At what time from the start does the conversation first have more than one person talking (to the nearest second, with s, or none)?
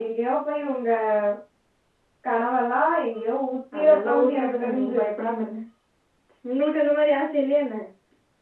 4 s